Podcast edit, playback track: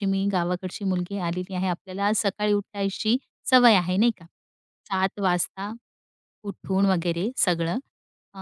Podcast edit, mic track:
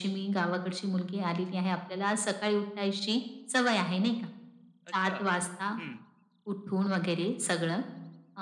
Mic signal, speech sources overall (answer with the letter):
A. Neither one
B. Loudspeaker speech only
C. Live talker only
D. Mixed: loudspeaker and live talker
D